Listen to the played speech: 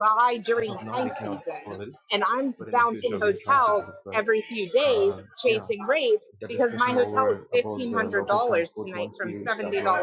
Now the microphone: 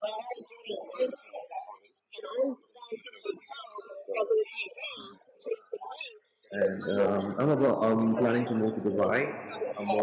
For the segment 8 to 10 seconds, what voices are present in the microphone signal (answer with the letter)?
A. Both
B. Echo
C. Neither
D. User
A